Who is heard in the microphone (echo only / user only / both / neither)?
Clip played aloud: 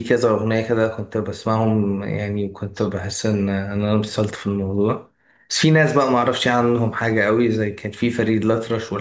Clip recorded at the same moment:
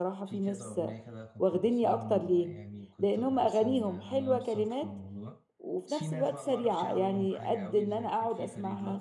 both